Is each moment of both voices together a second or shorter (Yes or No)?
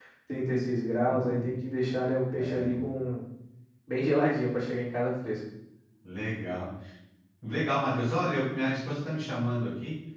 Yes